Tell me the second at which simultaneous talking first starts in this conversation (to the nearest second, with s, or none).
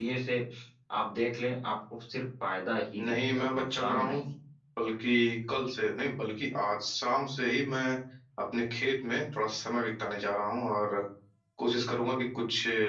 3 s